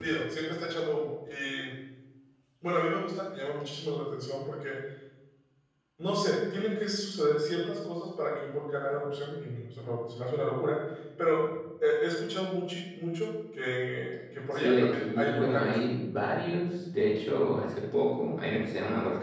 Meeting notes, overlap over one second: present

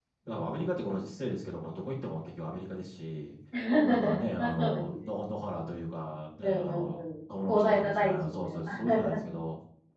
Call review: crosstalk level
present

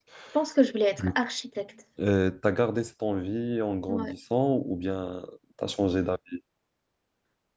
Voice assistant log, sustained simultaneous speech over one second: none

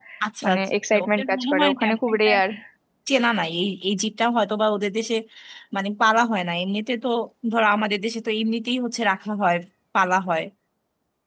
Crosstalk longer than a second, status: present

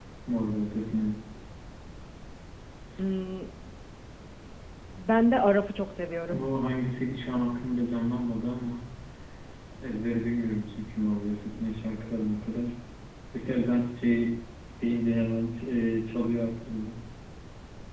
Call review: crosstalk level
none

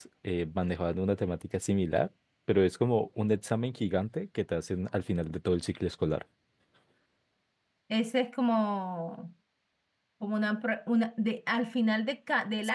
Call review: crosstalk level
none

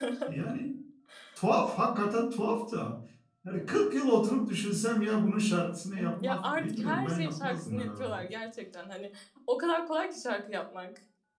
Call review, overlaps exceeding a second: present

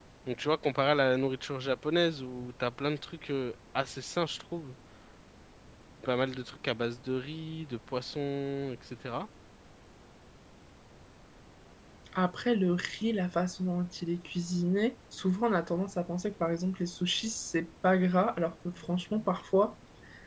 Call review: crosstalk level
none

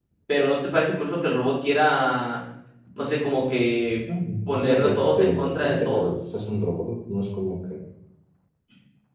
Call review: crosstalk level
present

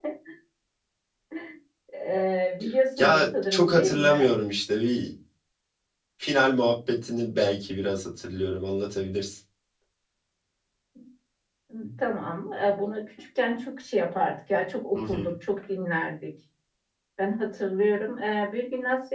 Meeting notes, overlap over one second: present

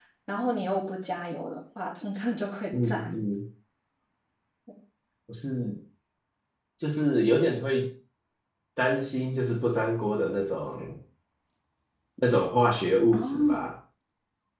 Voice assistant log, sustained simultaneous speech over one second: none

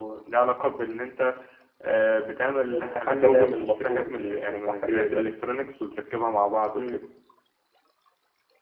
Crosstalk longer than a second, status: present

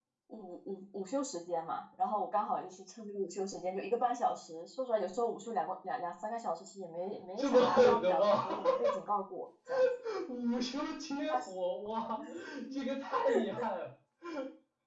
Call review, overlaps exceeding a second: present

